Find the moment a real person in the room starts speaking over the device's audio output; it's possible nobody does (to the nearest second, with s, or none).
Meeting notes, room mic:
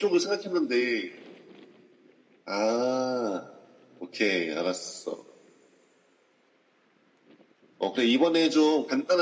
none